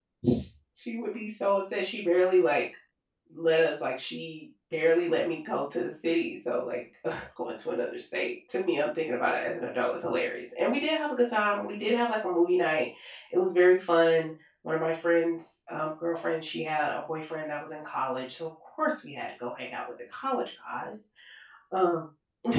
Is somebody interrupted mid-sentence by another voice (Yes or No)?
No